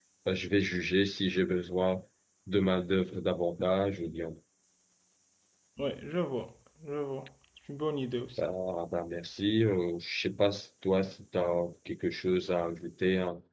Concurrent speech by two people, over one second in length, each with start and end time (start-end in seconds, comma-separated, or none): none